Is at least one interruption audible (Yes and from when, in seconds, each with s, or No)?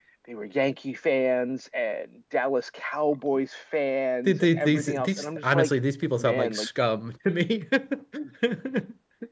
Yes, from 4.3 s